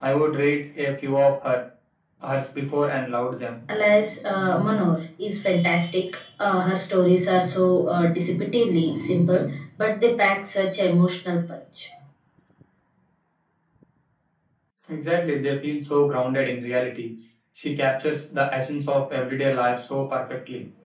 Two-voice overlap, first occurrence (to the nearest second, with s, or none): none